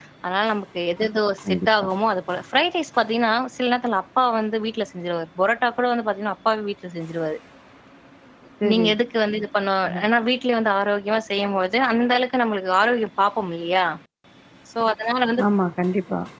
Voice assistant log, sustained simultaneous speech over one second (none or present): none